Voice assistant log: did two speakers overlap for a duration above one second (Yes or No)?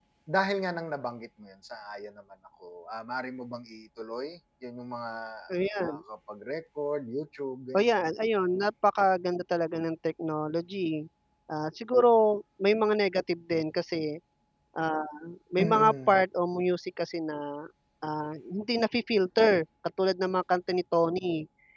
No